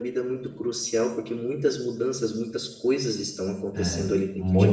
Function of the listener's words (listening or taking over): taking over